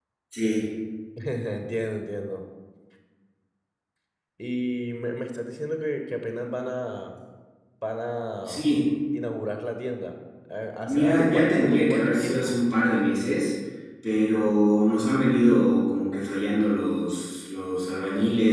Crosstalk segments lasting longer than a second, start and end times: 10.9-12.6

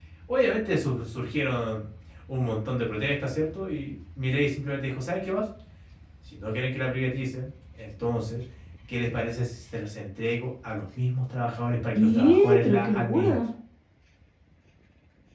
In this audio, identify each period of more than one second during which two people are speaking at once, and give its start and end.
11.9-13.4

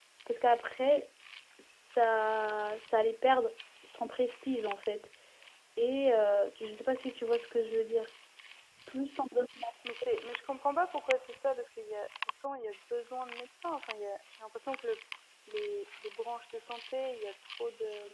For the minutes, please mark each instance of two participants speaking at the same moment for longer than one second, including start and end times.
none

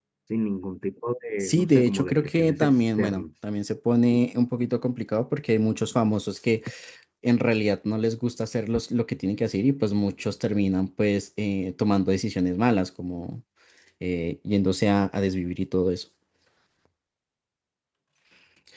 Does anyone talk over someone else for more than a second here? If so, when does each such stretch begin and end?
1.4-3.2

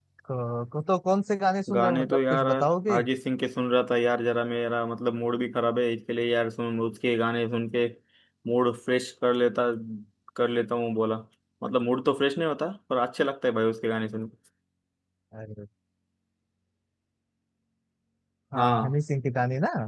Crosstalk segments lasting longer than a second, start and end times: 1.7-3.0

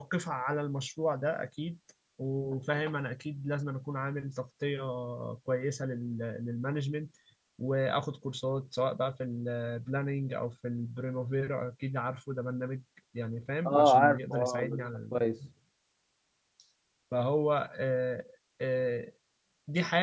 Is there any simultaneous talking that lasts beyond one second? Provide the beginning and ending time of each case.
13.7-15.1

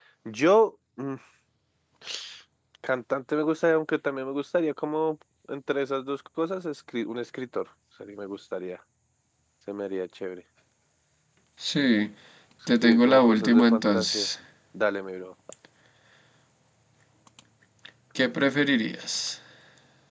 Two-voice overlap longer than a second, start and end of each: 12.8-14.3

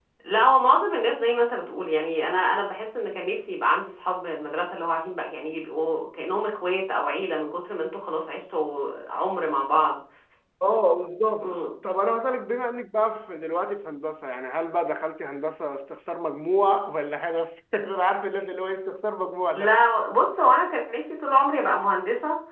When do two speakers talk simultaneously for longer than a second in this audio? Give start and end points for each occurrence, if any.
none

